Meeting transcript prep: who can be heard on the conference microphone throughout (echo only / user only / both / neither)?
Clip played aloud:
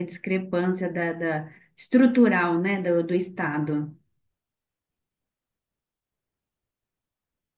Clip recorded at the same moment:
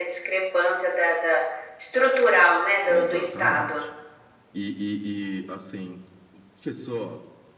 both